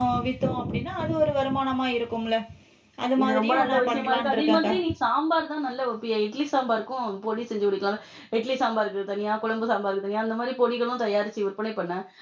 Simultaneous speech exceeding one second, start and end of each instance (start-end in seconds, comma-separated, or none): 3.2-4.7